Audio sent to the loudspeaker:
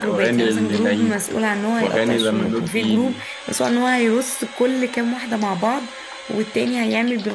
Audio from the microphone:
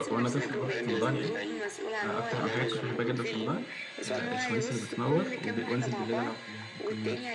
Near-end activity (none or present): present